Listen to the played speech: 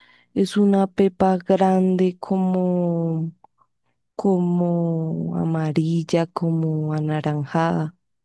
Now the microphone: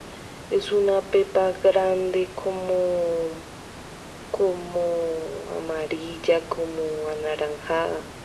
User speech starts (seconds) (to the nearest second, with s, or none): none